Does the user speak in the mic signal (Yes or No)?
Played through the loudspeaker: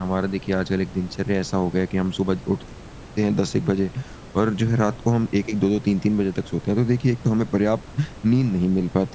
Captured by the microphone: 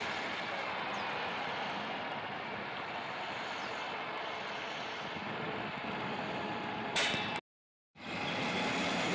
No